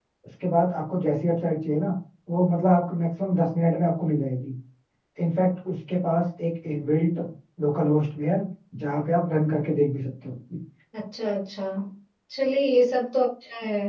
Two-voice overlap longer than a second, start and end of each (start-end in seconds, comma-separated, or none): none